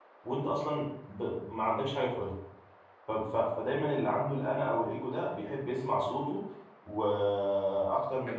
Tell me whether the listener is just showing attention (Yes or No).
Yes